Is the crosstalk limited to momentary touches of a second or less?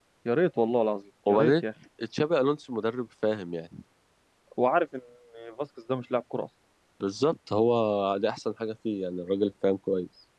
Yes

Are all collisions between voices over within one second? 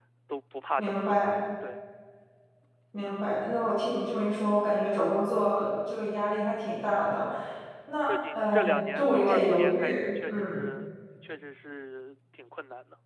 No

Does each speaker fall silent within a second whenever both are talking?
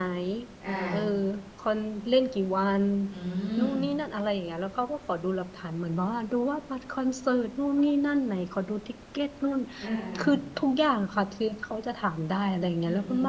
Yes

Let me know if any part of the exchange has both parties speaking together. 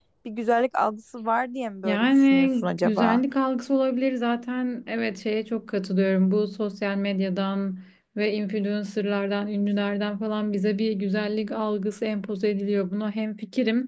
Yes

